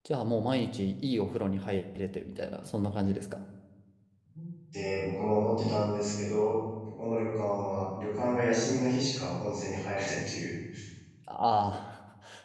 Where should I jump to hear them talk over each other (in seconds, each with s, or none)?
none